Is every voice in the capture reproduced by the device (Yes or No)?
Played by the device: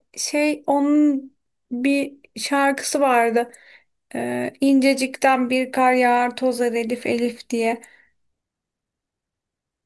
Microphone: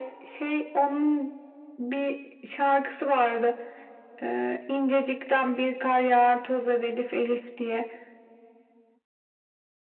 Yes